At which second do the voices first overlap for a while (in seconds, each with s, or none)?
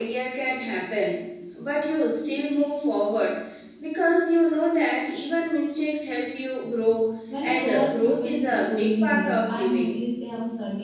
7.3 s